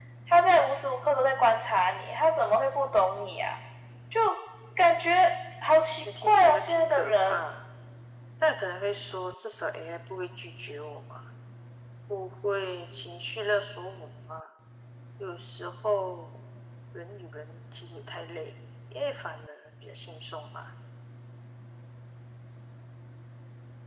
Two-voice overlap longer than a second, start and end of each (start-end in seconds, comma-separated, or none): 6.0-7.5